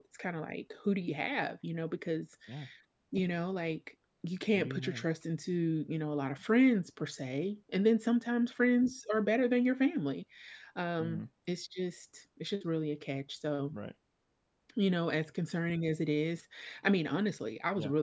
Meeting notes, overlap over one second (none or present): none